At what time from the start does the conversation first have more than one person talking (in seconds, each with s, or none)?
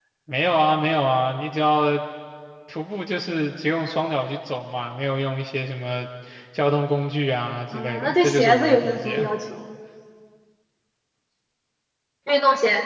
7.7 s